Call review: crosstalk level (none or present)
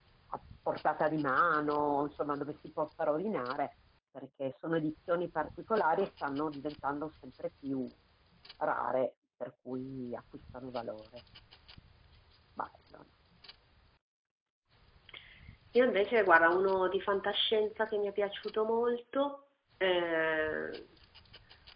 none